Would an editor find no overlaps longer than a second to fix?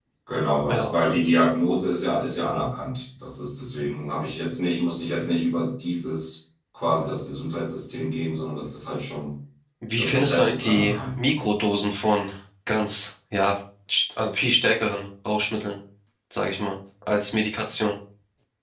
No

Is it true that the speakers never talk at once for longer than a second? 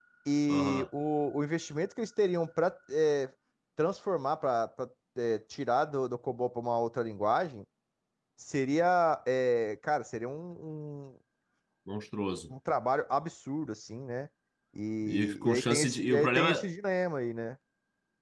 No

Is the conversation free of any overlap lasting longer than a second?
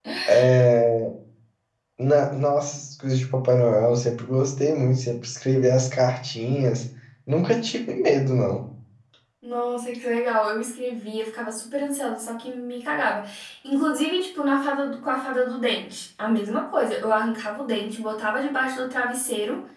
Yes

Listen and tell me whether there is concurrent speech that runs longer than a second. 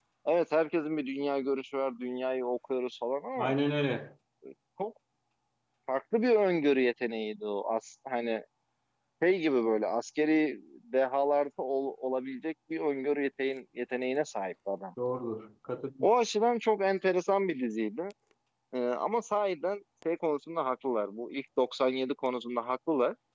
No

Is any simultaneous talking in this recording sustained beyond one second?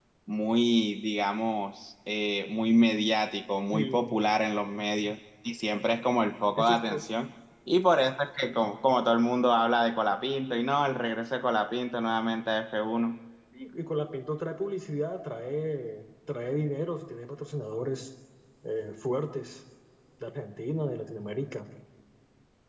No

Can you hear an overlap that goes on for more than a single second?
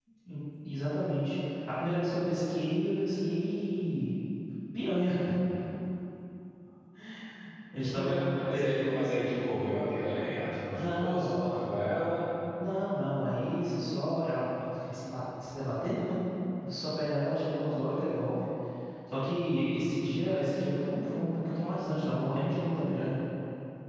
Yes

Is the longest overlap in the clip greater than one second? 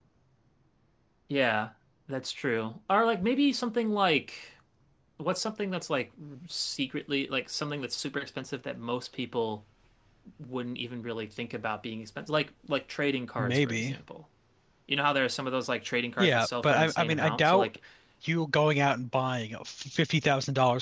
Yes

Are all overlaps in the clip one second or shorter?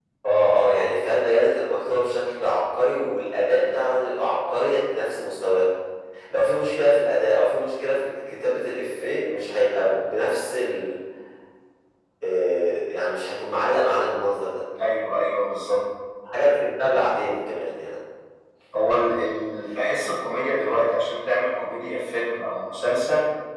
Yes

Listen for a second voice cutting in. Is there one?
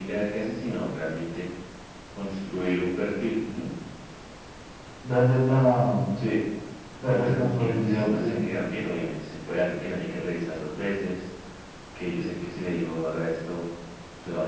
Yes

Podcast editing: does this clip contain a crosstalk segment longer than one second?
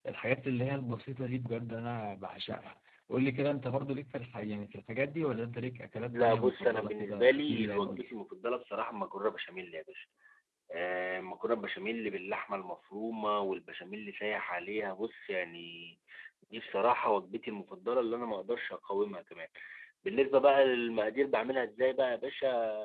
Yes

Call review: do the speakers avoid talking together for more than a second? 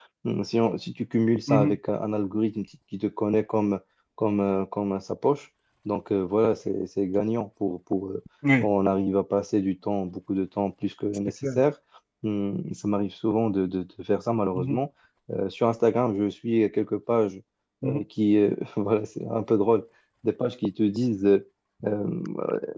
Yes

